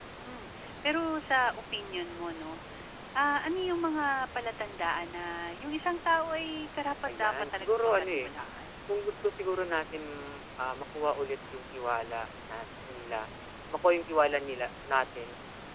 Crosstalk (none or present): present